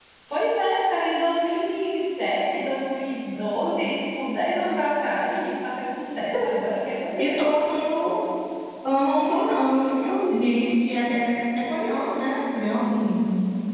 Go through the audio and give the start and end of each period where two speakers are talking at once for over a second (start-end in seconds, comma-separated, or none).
none